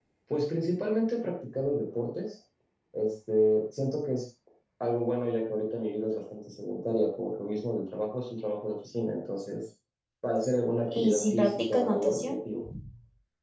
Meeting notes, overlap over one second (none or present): present